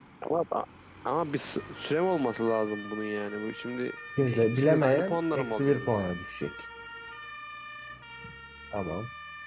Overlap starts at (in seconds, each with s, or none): 4.2 s